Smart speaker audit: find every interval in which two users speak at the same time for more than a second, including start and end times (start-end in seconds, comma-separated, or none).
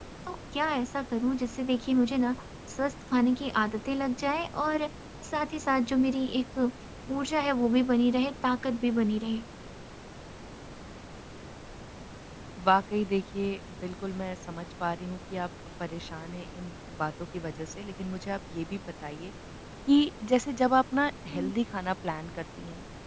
none